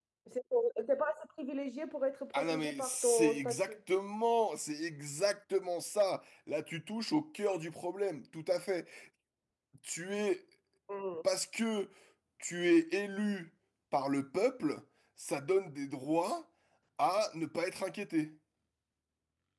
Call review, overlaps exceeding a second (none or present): present